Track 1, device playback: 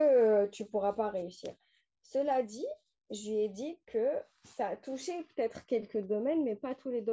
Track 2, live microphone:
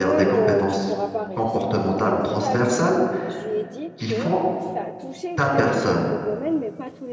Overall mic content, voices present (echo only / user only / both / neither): both